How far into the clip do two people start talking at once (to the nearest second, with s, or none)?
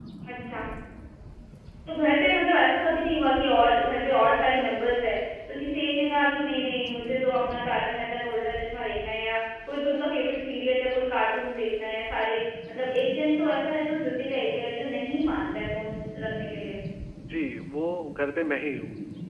none